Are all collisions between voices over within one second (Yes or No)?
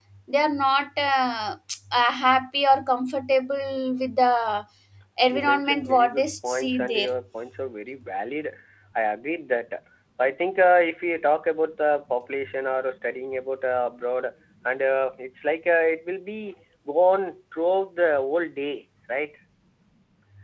No